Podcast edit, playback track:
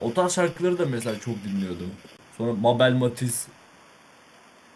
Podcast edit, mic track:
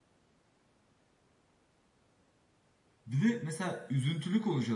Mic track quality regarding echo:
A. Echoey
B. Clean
B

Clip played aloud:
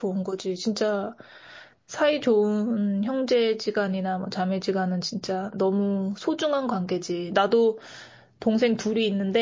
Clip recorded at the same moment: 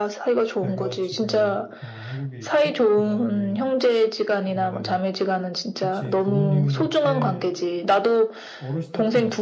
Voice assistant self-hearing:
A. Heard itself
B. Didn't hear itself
A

